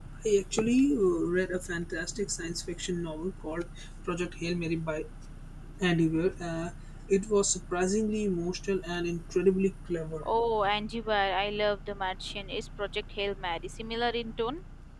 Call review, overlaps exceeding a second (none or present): none